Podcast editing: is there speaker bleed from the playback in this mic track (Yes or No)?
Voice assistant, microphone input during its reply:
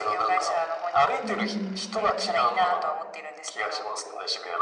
Yes